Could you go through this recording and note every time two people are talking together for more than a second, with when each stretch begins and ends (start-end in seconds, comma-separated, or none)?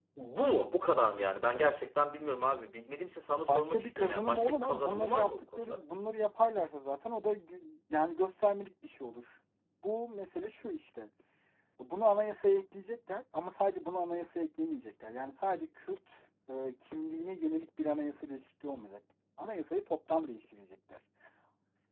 3.5-5.8